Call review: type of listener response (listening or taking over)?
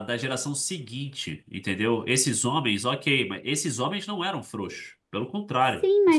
taking over